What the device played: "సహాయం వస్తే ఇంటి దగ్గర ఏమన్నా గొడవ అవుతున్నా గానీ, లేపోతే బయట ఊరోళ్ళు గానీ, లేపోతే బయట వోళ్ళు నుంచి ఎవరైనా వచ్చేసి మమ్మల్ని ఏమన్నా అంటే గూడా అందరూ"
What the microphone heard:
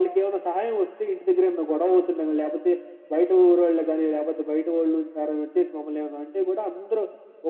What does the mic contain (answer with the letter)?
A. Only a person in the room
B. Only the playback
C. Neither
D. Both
B